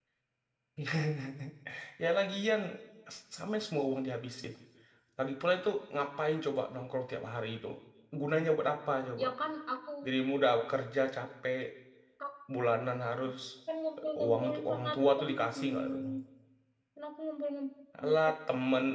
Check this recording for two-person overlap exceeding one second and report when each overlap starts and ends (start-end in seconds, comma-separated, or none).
14.0-16.0